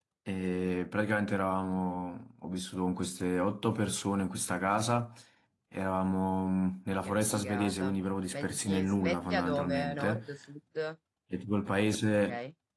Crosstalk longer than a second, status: present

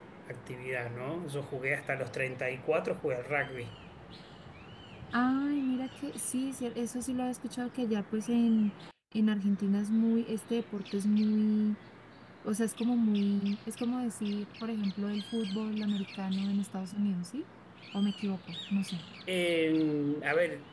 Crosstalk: none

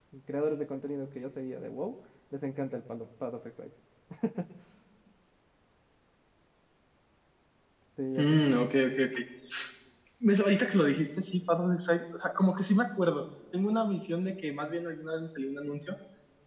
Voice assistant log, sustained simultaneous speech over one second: none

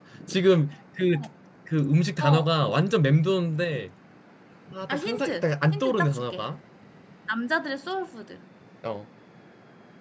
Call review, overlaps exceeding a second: present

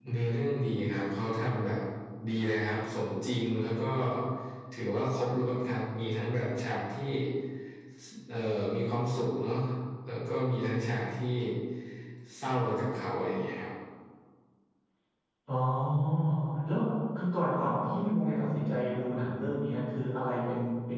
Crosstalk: none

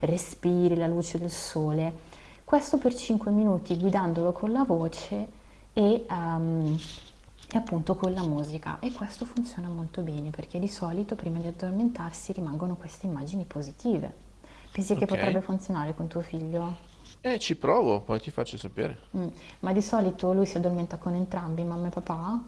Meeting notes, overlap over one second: none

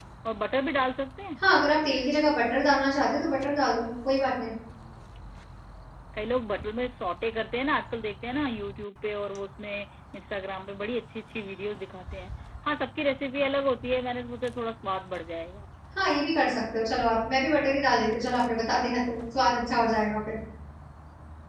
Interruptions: none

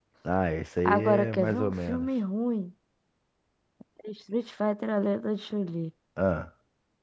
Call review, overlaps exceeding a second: present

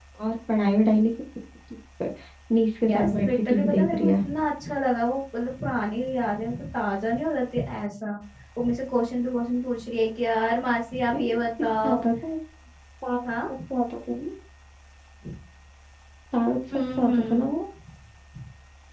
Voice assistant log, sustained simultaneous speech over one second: present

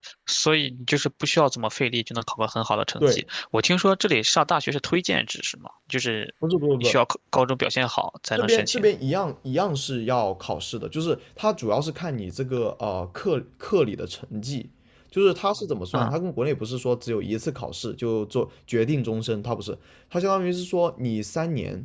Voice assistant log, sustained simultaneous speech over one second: none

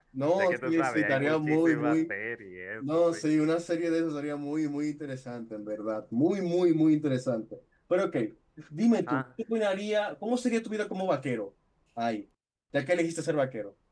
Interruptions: present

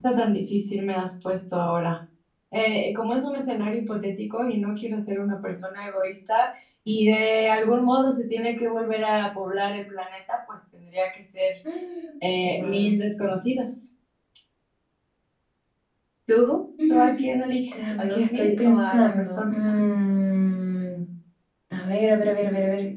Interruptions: present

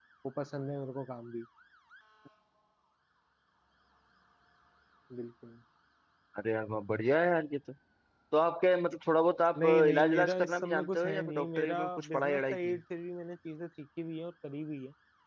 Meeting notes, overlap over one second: present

